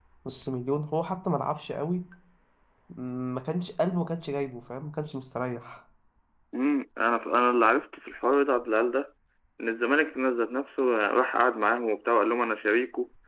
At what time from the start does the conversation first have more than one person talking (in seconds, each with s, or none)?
none